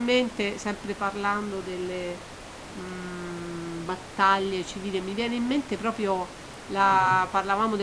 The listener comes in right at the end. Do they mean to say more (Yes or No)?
No